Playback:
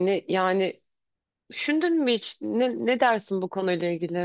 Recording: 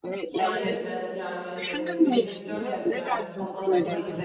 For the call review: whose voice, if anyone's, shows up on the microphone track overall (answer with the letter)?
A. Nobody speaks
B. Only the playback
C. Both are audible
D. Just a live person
C